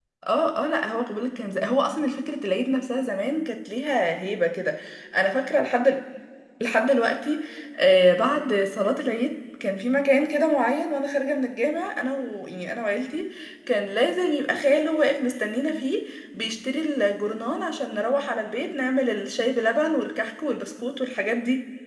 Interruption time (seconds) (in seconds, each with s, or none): none